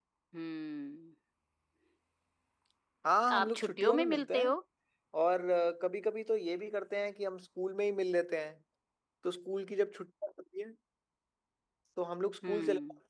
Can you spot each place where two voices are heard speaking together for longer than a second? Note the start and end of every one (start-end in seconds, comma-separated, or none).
3.3-4.5